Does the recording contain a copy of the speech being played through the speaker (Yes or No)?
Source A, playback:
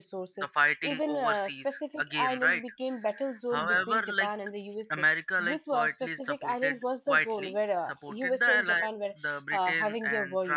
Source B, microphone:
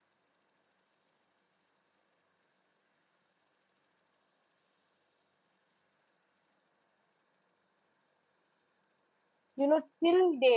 No